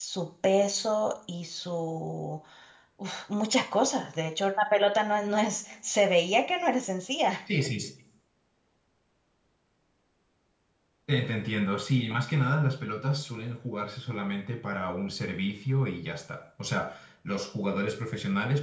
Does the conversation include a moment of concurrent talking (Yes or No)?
No